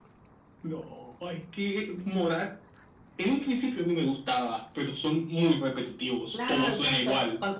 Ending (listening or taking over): taking over